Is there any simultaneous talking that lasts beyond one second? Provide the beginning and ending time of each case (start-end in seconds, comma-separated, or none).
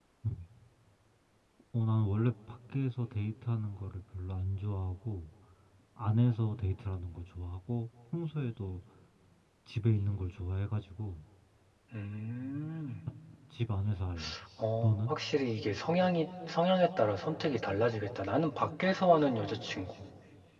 none